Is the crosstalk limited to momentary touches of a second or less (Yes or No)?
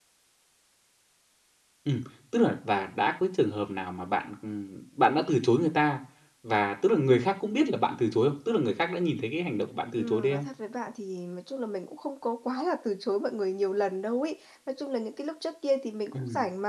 Yes